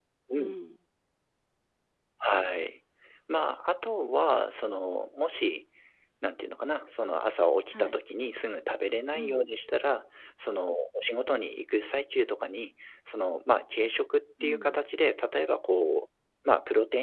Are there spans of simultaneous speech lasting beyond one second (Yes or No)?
No